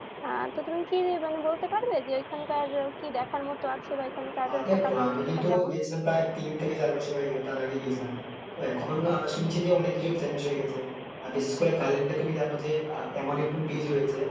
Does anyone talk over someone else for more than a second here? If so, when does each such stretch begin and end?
4.5-5.7

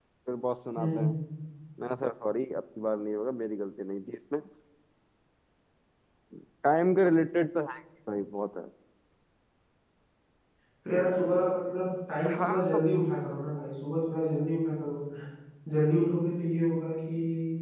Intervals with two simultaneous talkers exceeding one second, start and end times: none

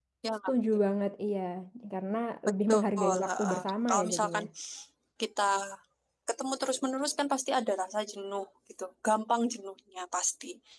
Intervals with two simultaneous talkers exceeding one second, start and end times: 2.7-4.4

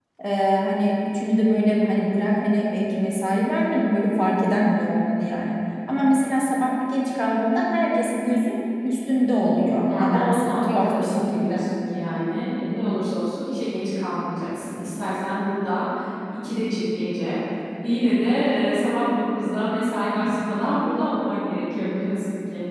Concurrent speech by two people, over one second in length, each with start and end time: 9.9-11.7

